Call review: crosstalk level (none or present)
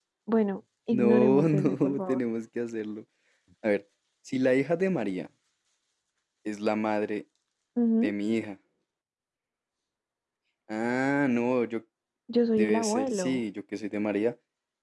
present